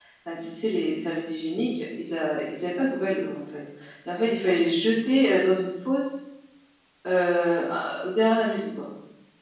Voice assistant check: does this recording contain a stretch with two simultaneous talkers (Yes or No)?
No